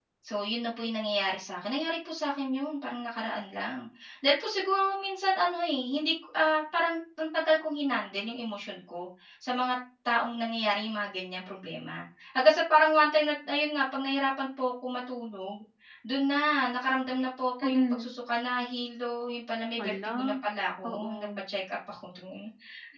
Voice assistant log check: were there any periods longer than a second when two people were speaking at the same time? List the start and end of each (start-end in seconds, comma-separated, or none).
none